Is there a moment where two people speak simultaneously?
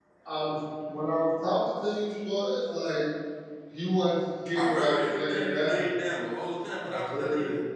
Yes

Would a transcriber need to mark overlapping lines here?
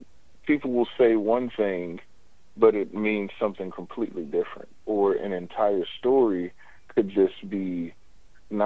No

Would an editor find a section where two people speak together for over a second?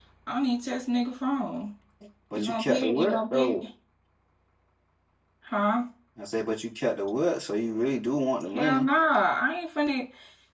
Yes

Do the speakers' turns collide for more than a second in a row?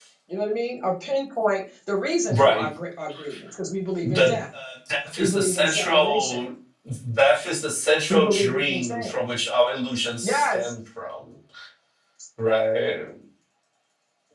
Yes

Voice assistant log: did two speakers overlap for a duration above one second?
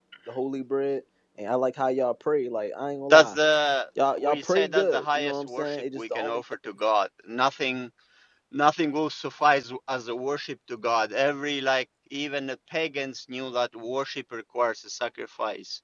Yes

